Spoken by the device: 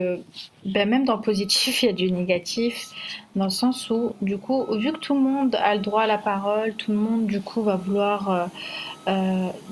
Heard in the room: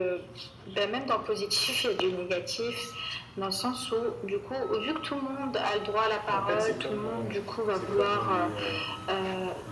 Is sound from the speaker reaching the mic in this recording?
Yes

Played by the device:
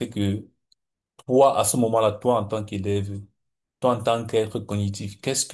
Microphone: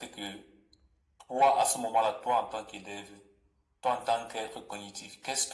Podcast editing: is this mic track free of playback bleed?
No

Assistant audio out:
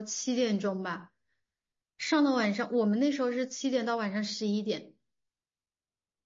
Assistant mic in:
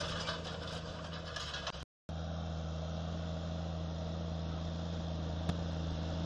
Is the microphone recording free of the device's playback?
Yes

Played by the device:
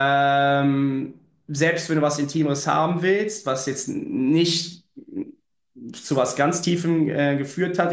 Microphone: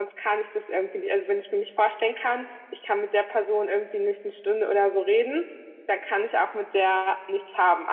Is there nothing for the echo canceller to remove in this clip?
Yes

